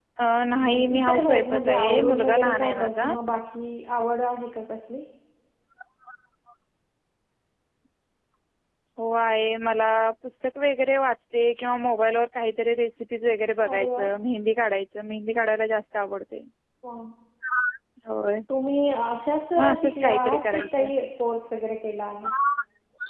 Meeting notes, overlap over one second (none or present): present